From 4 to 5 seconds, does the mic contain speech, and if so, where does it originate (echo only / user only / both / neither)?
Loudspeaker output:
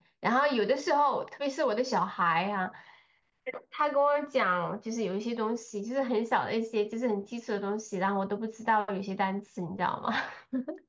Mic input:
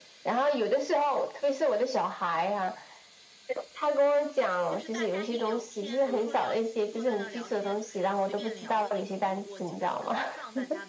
both